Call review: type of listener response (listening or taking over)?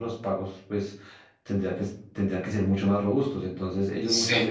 listening